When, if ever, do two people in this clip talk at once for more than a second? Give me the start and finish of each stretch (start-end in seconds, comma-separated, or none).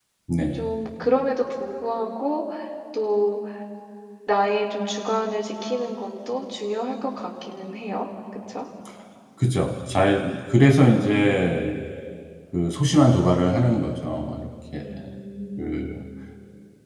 none